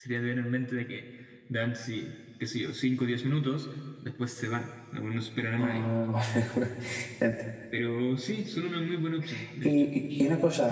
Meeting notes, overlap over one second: none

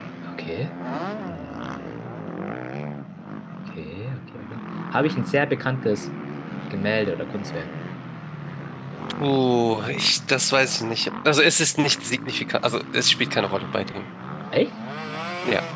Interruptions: none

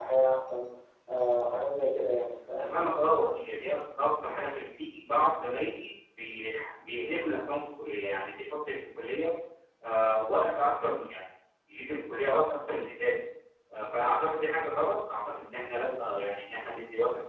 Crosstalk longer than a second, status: none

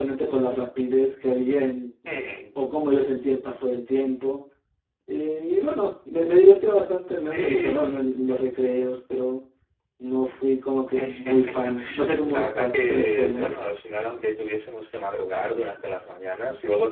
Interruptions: present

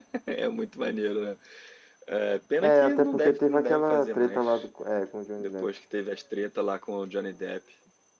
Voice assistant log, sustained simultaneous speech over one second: present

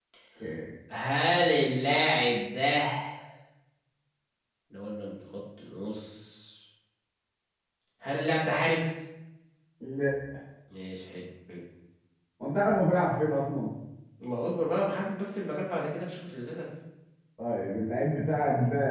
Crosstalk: none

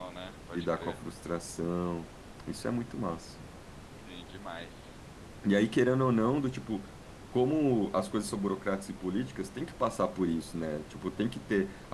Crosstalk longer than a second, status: none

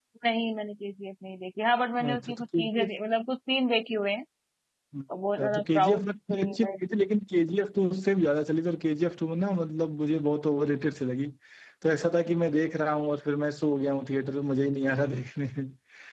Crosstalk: present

